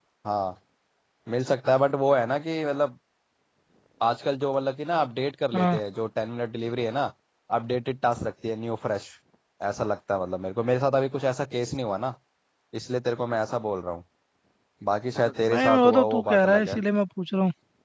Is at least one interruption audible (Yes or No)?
Yes